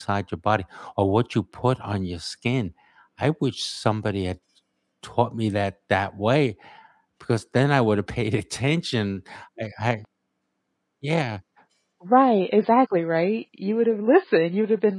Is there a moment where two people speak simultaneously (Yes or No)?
No